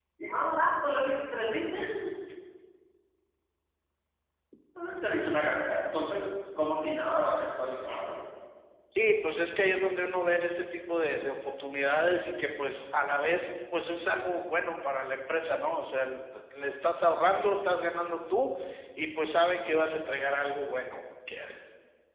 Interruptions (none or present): none